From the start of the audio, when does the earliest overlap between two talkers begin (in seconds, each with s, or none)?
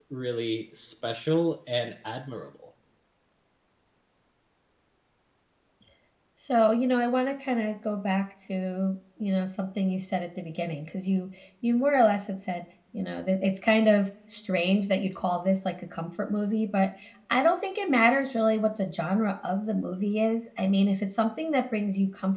none